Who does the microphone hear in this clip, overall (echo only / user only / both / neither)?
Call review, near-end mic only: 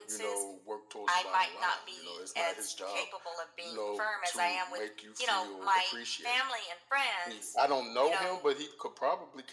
echo only